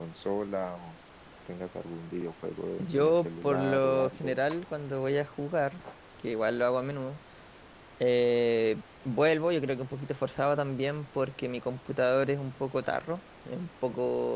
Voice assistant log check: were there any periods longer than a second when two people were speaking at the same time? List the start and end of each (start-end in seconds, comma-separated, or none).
2.8-4.4